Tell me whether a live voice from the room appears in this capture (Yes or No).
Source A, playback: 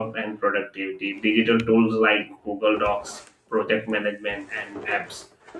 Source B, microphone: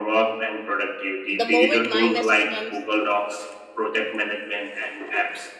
Yes